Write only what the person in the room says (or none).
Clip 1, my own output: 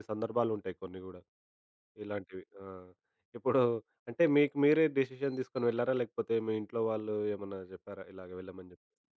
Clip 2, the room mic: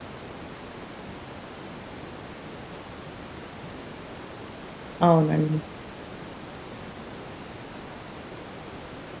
అవునండి.